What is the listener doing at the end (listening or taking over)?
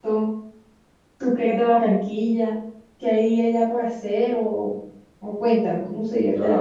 taking over